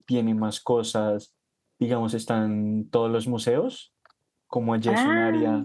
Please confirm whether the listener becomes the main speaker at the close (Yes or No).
No